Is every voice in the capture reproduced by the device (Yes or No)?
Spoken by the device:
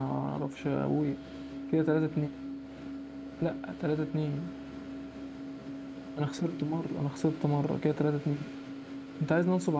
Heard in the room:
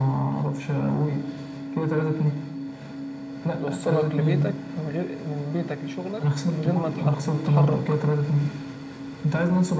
No